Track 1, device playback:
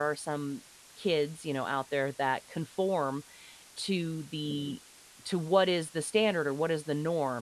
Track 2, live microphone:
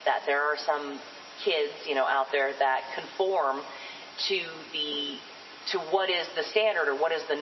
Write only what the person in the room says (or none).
none